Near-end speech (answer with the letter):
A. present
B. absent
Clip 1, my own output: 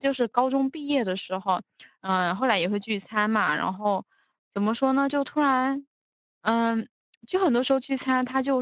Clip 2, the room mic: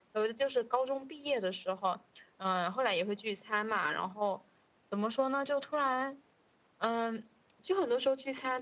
B